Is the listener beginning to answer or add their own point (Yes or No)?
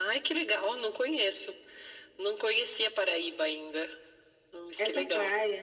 Yes